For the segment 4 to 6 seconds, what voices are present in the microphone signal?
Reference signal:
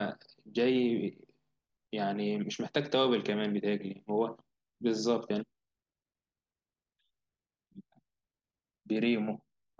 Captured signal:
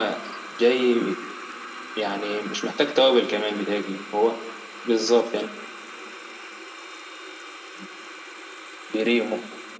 echo only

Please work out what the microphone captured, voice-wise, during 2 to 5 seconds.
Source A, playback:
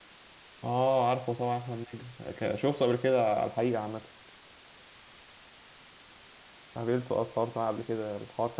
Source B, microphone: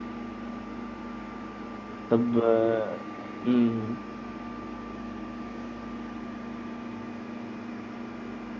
user only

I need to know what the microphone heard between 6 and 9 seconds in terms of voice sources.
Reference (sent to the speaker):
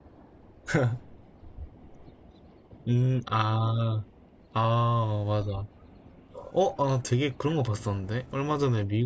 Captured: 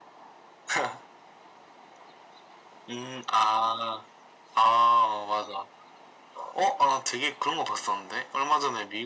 echo only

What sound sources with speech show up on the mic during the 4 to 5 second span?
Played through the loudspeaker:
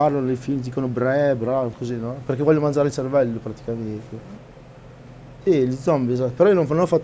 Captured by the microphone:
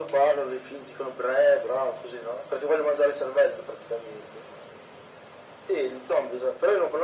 echo only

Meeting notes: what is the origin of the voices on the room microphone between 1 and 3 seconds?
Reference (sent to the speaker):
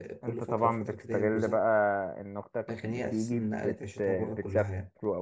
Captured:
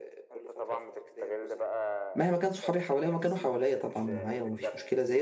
both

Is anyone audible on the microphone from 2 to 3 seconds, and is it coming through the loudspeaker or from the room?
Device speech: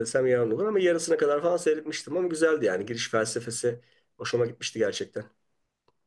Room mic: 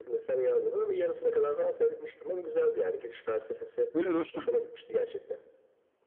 echo only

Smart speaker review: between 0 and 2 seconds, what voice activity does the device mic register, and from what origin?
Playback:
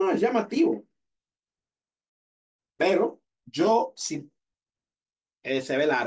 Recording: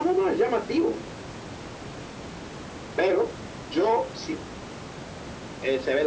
echo only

